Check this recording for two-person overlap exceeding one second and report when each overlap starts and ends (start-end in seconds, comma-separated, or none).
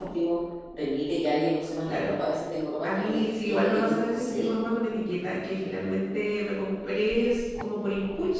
2.8-4.5